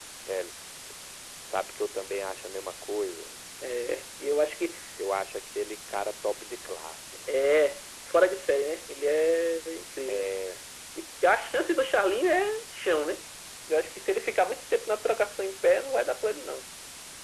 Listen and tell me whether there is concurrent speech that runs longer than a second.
No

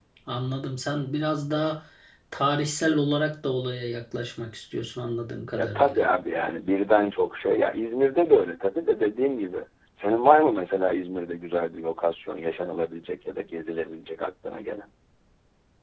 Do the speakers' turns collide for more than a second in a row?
No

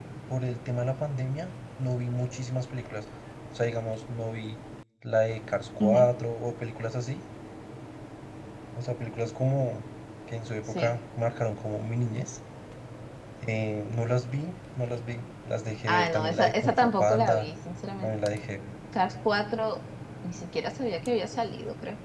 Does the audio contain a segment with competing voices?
Yes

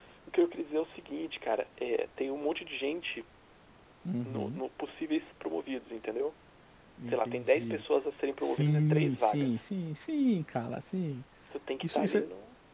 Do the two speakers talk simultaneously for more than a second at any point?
Yes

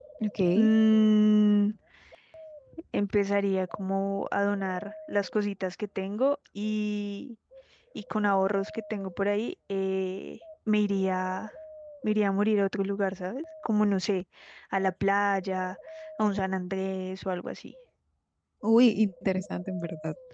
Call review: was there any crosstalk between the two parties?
No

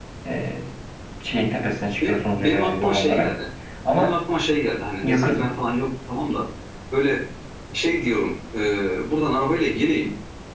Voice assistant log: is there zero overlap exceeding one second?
No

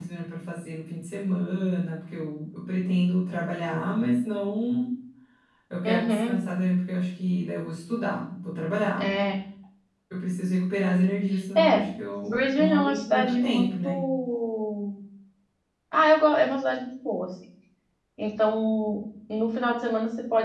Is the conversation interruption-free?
No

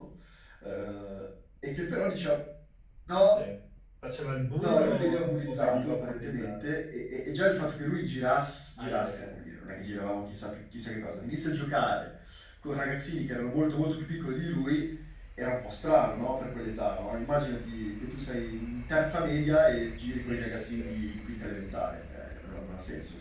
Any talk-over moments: Yes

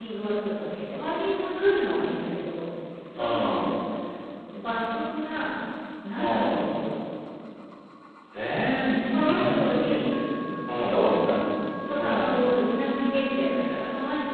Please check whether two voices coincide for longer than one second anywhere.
Yes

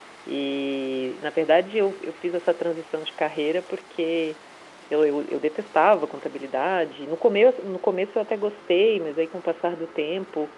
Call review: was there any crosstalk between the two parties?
No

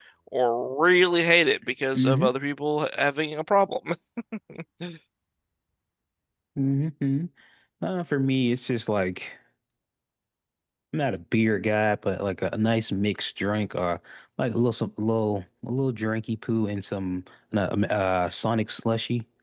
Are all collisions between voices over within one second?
Yes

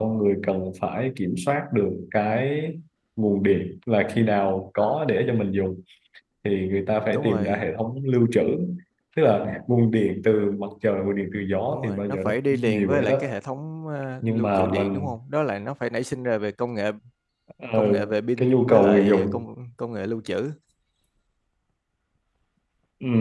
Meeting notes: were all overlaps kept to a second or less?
No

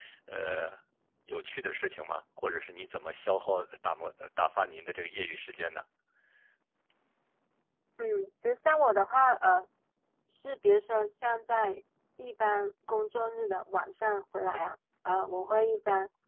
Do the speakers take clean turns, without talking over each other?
Yes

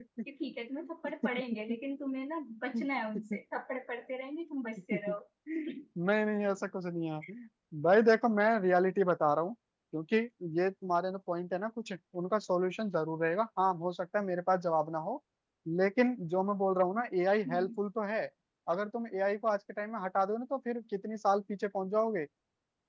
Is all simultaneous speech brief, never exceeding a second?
Yes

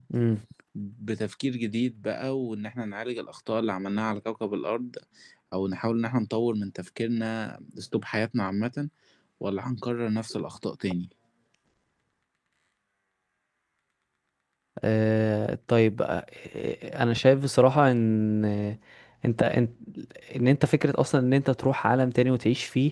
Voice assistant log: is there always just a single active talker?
Yes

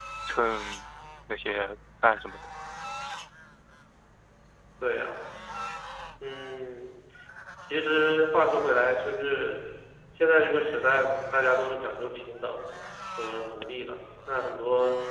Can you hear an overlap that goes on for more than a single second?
No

